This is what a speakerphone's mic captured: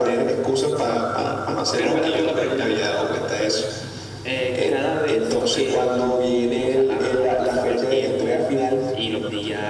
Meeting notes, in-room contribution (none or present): none